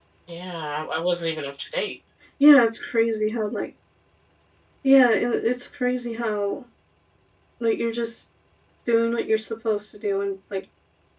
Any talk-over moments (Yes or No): No